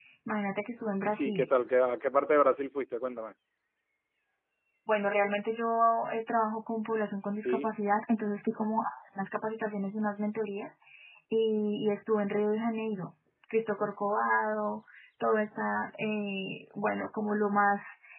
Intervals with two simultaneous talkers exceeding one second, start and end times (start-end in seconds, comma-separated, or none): none